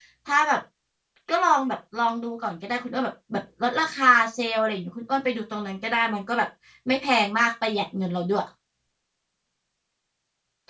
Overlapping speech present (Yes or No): No